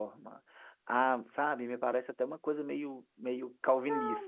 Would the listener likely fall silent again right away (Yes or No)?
No